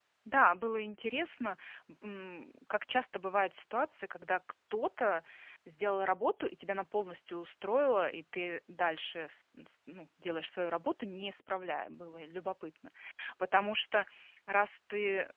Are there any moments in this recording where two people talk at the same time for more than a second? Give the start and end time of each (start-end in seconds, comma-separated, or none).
none